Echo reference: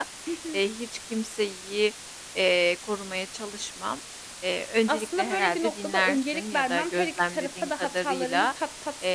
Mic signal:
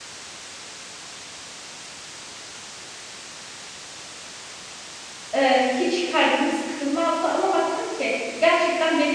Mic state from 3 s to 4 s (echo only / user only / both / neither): neither